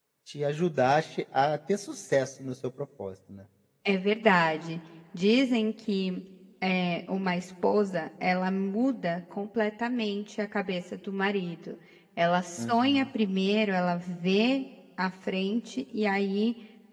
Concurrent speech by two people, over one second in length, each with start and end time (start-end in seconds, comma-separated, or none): none